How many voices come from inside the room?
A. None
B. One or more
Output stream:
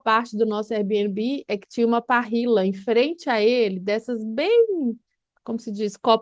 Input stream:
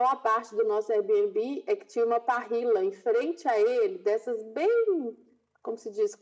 A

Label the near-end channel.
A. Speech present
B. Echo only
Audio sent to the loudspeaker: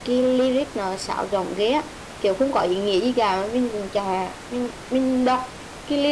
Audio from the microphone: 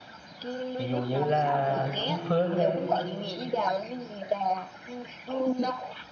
A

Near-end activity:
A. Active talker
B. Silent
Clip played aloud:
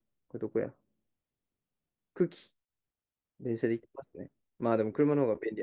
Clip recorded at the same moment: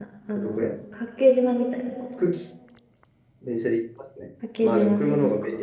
A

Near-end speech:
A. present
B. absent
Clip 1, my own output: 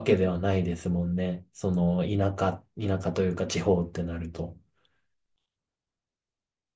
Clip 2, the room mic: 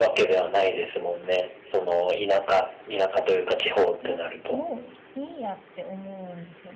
A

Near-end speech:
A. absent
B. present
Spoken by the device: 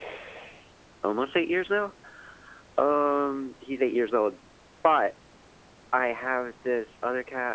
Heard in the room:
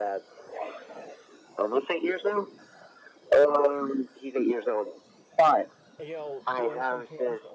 B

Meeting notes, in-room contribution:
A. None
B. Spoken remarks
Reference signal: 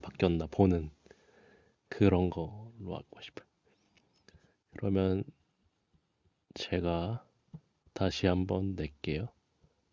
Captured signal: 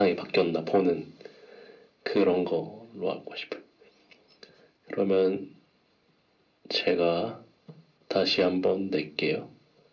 A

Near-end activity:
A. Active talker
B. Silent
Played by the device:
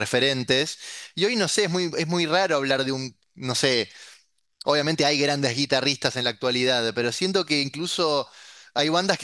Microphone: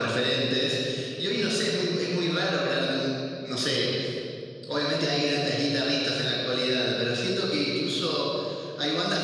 B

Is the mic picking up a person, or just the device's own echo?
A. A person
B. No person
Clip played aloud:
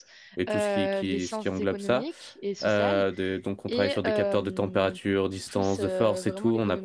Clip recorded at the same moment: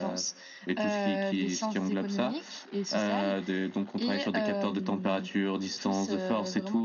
B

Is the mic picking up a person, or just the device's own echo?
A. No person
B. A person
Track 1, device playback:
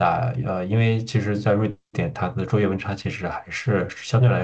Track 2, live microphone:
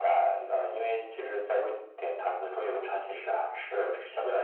B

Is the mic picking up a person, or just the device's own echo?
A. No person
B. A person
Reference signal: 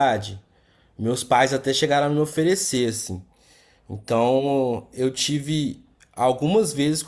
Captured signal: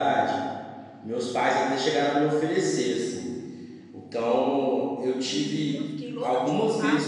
B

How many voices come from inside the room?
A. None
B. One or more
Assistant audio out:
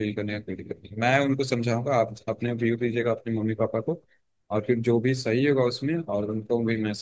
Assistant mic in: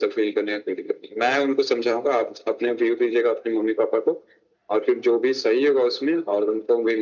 A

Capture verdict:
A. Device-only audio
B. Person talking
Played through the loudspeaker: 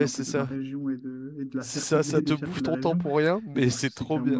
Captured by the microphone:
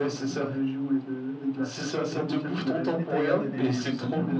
B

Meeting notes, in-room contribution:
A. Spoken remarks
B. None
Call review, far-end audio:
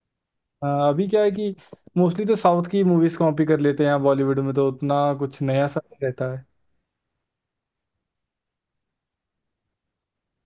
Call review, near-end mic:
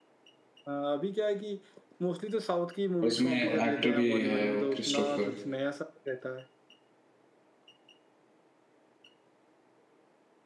A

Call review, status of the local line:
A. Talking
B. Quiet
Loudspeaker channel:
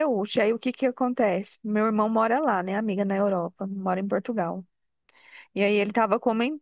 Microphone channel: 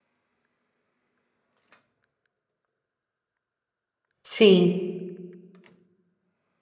A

